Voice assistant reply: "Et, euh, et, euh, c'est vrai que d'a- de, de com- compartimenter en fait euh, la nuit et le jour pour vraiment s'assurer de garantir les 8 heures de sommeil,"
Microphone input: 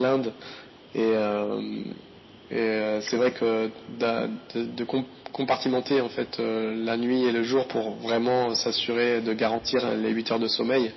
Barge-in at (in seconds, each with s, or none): none